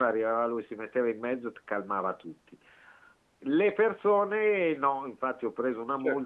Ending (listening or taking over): listening